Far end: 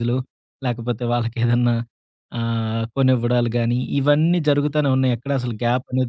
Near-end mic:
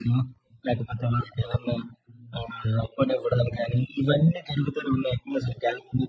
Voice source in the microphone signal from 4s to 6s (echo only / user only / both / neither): echo only